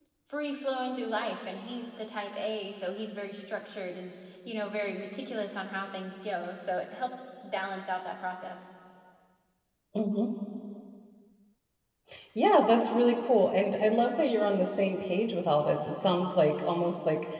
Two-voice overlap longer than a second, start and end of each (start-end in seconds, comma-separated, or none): none